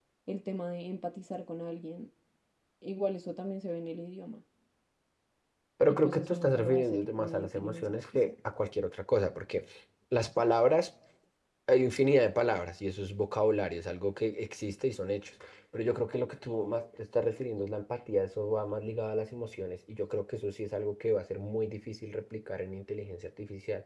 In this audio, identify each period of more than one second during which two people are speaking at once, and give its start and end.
5.9-8.3

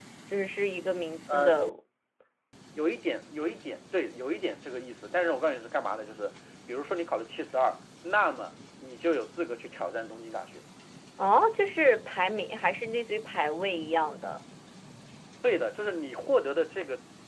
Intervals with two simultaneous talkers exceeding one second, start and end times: none

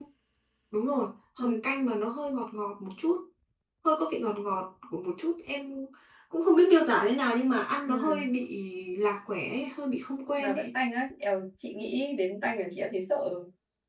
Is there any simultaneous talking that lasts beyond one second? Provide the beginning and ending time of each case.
none

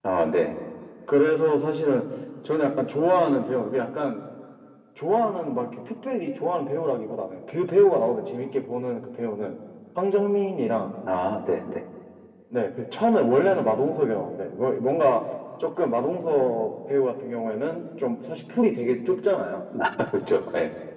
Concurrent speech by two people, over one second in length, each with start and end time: none

